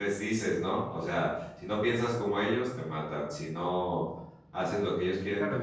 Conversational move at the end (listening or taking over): taking over